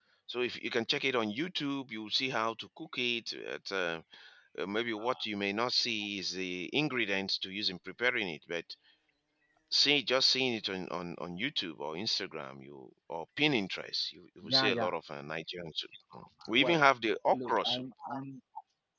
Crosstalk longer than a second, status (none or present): none